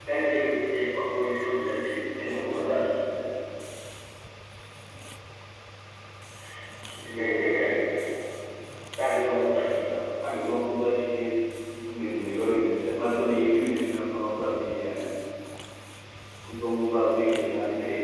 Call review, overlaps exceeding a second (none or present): none